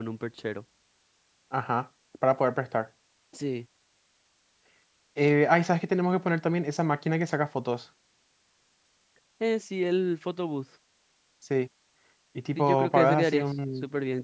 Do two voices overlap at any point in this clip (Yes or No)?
Yes